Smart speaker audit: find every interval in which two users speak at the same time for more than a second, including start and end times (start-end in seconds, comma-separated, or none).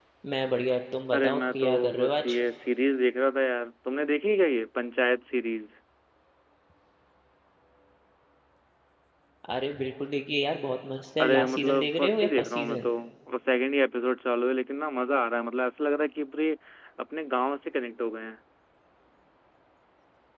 1.1-2.4, 11.2-12.9